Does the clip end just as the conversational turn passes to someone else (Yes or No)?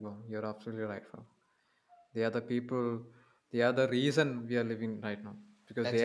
No